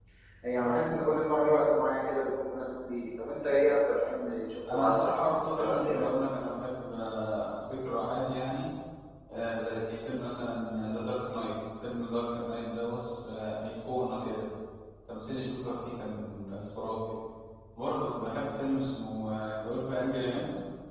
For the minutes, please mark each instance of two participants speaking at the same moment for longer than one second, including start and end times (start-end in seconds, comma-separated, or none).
4.7-6.0